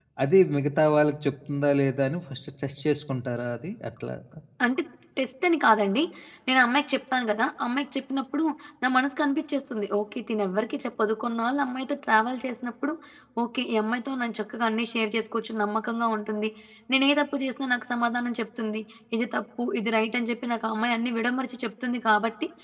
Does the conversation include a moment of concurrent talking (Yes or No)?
No